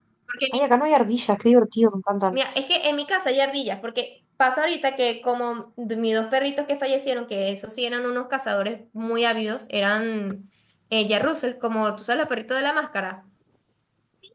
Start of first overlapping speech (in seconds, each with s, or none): none